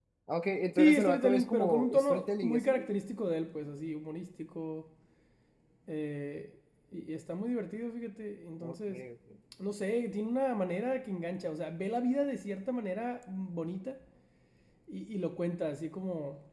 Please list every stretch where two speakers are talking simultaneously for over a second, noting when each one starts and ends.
0.8-2.8

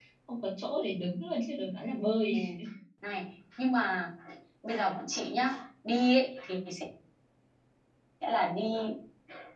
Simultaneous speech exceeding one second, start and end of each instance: none

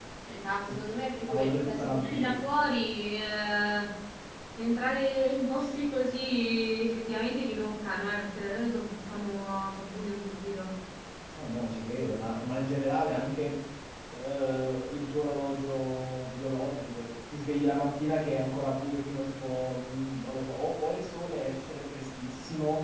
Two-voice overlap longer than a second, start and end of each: 1.3-2.5

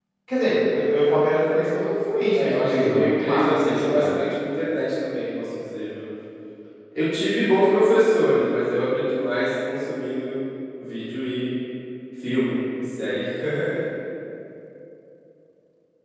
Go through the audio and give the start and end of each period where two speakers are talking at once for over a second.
2.3-4.1

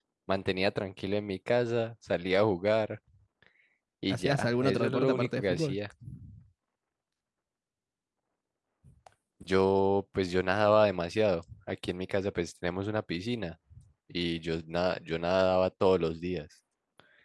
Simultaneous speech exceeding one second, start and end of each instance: 4.1-5.8

